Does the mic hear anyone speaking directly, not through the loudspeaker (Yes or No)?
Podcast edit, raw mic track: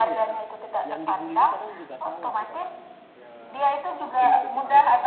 Yes